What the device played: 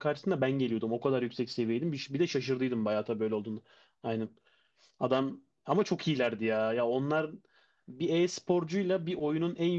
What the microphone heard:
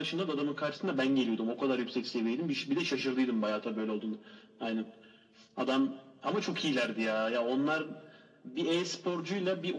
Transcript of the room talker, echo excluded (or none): none